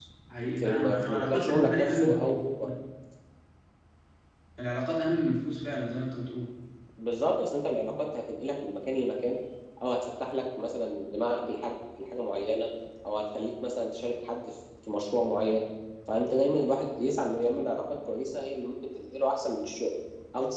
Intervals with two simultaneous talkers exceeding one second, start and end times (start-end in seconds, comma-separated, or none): 0.6-2.7